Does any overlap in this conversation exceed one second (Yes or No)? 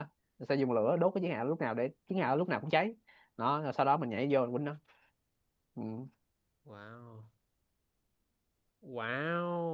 No